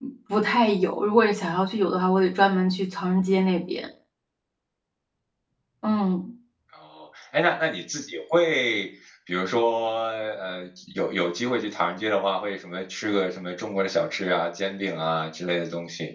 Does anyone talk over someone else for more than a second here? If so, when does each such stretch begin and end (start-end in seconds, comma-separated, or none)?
none